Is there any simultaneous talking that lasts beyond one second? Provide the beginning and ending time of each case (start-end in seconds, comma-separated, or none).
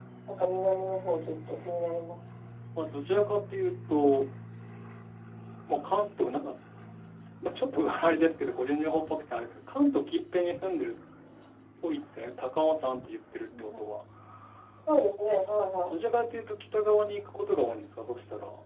none